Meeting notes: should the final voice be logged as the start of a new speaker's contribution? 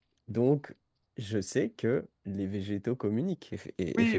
Yes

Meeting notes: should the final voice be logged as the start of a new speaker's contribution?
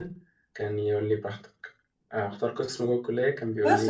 Yes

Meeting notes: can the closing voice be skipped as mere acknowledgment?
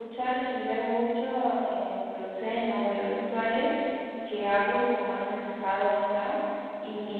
Yes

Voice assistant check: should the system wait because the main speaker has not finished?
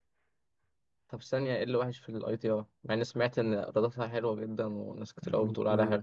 No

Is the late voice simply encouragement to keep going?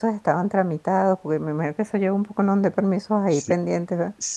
No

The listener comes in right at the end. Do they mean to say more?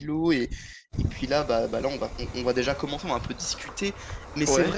No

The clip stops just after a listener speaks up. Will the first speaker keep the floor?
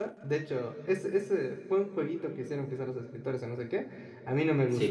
Yes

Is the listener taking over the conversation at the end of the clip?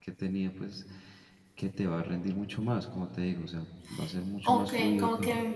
Yes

